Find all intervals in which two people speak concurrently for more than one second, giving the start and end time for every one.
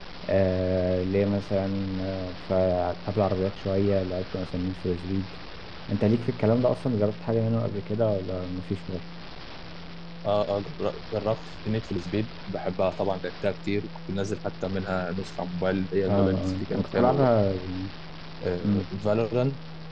16.1-17.3

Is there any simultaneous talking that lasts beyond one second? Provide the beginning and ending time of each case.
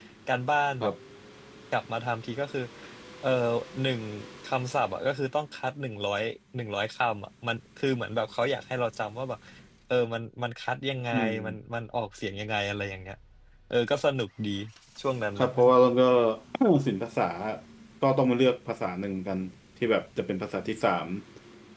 none

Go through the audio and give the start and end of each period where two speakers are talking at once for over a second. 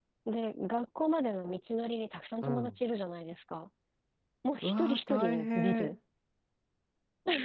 4.6-6.0

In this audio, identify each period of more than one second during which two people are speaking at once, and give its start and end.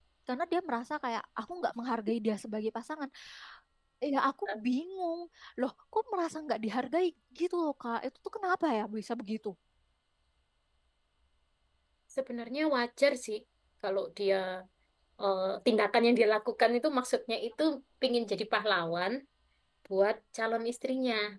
none

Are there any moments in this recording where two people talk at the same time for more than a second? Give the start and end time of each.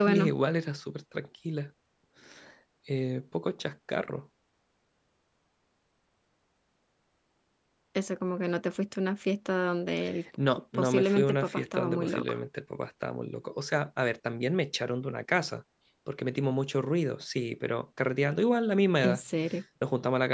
10.7-12.4

